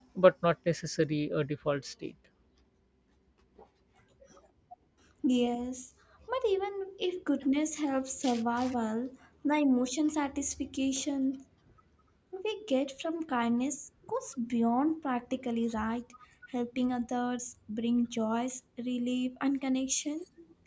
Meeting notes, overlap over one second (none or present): none